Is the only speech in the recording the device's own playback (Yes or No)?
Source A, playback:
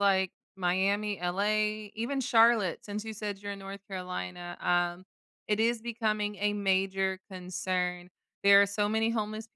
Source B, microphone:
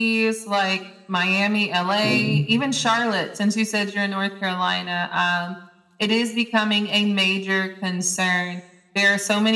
No